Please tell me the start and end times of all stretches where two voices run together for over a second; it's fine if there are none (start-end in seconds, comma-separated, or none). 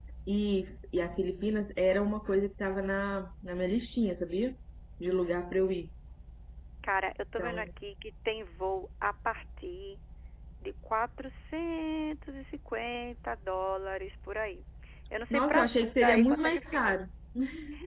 15.3-17.0